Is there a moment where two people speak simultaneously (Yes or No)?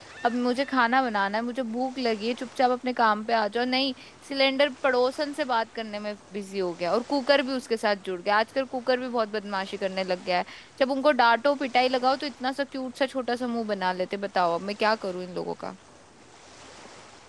No